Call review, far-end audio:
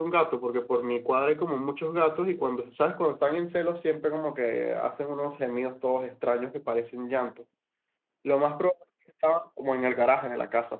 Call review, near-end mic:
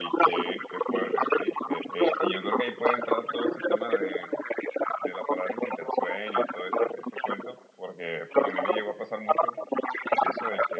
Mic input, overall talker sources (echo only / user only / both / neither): both